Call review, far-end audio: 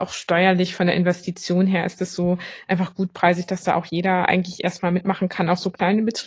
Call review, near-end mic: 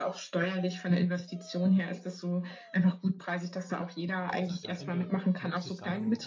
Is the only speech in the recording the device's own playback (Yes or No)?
No